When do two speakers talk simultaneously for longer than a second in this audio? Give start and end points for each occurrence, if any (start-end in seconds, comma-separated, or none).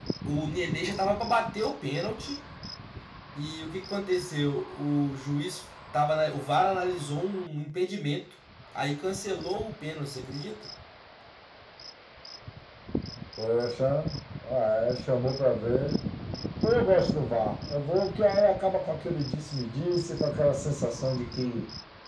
none